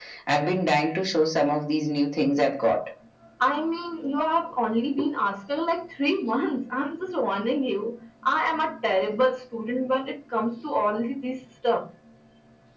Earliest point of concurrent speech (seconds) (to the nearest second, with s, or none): none